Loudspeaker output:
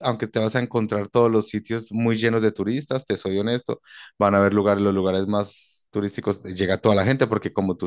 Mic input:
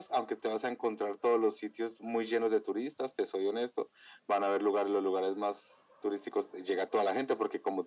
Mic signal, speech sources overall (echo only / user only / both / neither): echo only